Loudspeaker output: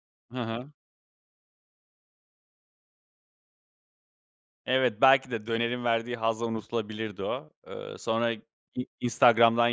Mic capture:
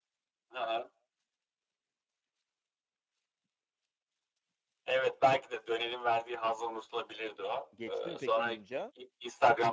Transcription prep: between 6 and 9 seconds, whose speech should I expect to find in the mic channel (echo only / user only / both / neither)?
both